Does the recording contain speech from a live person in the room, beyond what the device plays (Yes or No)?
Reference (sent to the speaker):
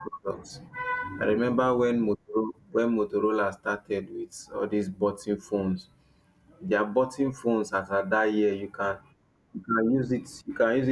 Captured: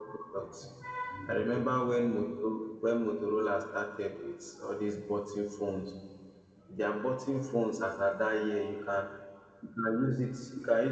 No